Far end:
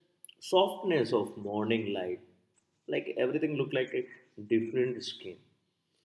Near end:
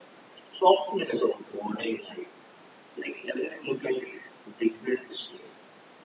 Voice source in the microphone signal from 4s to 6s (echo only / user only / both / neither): echo only